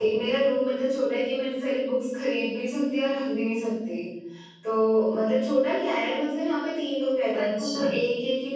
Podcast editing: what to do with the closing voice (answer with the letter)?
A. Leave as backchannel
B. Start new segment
A